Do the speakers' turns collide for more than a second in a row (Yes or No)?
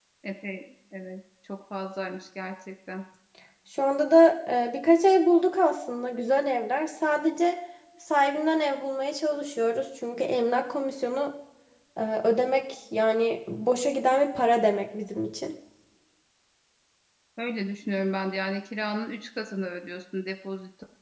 No